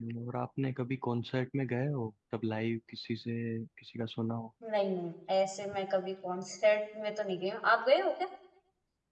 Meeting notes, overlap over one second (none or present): none